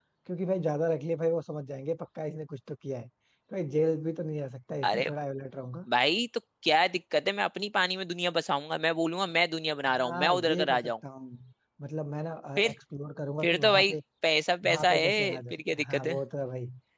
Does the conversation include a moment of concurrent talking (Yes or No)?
Yes